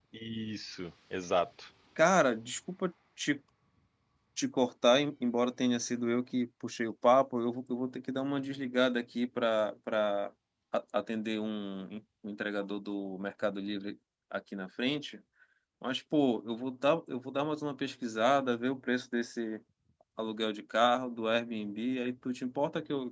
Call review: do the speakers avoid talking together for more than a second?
Yes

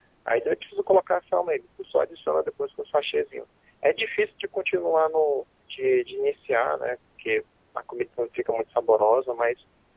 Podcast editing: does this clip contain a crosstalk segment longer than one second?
No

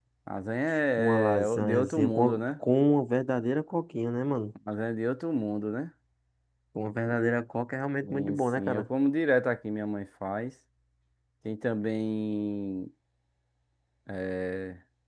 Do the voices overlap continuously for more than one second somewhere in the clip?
Yes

